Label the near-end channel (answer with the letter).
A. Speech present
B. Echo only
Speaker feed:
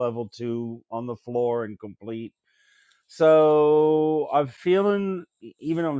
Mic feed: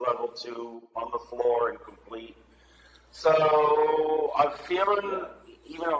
A